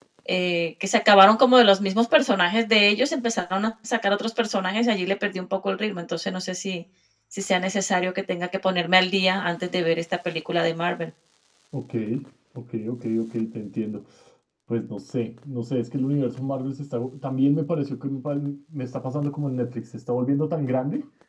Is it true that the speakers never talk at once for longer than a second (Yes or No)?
Yes